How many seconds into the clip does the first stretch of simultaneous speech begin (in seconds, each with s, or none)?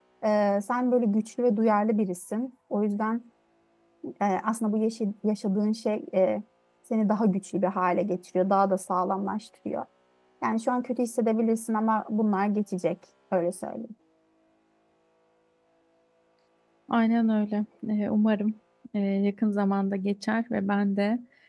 none